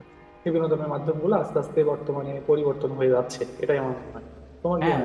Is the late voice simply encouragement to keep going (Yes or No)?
No